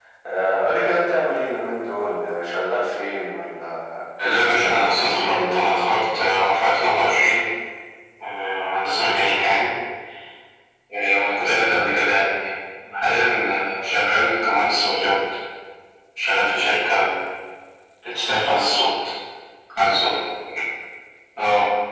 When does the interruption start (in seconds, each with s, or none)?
4.5 s